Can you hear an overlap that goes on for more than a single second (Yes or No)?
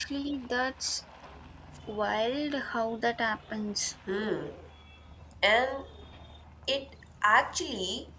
No